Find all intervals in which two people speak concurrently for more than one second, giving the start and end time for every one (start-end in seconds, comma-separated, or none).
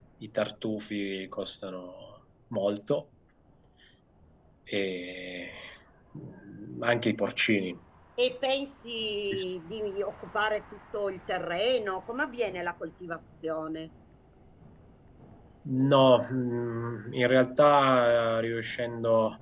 none